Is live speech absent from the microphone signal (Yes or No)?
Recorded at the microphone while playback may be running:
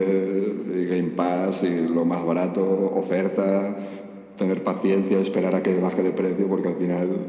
Yes